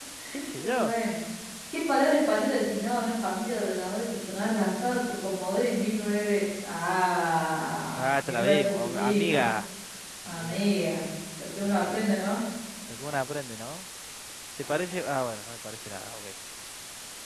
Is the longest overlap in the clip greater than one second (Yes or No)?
Yes